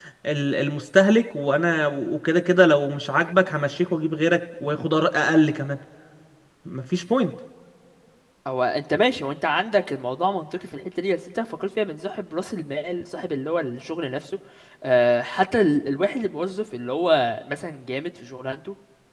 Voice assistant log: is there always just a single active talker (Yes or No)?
Yes